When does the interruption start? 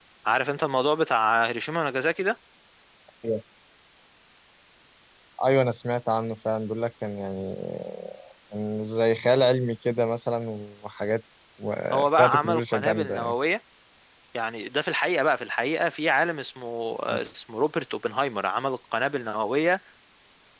12 s

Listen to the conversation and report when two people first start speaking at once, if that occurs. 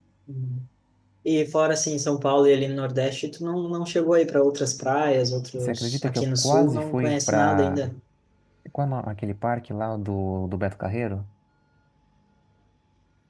6 s

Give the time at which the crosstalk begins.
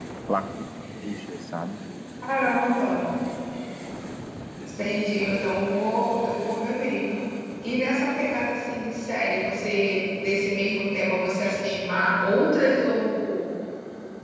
none

